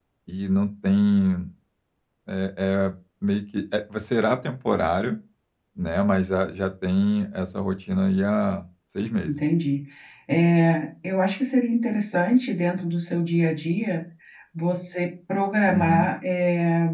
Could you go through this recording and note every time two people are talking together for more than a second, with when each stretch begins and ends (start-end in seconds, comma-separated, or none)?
none